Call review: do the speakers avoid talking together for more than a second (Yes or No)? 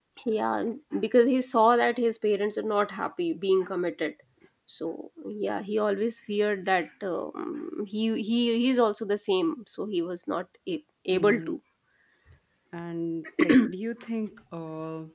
Yes